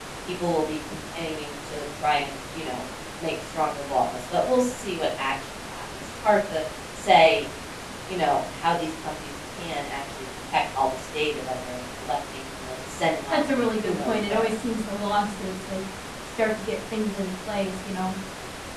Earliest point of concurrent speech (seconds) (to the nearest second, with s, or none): 13 s